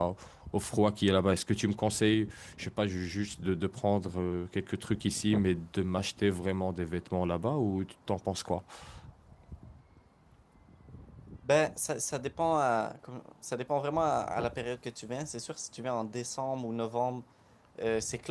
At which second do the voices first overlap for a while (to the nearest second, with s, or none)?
none